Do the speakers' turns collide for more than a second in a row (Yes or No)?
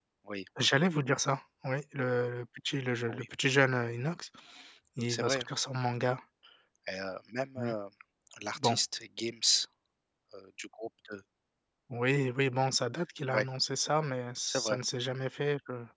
No